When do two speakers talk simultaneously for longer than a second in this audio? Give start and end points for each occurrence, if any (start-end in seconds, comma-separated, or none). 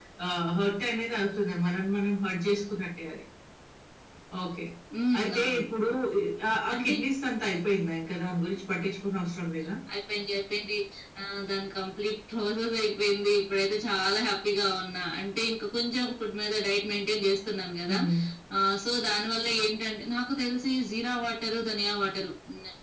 none